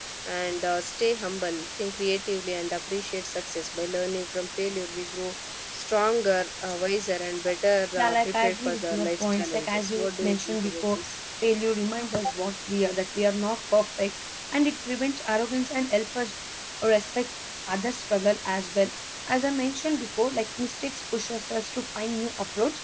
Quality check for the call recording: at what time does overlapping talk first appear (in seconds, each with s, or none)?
8.0 s